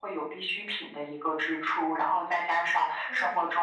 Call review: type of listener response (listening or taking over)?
listening